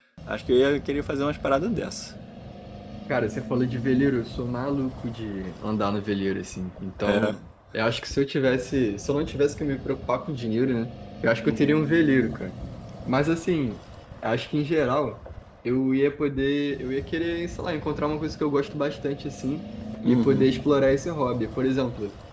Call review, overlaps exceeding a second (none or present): none